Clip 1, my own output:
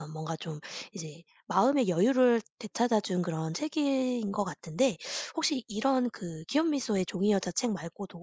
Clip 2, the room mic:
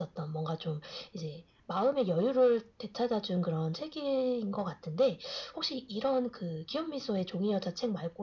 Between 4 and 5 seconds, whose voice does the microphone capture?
echo only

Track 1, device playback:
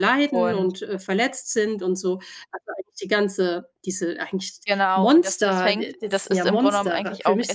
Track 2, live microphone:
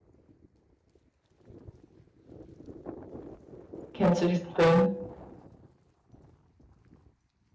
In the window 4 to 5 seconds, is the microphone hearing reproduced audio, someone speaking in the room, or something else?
user only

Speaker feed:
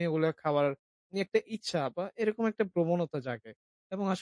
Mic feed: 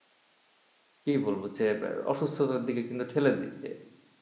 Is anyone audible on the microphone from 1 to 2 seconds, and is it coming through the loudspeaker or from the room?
user only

